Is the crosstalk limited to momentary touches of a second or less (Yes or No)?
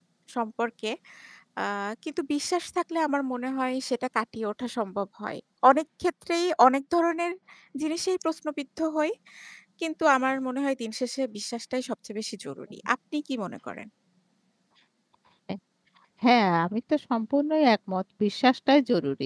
Yes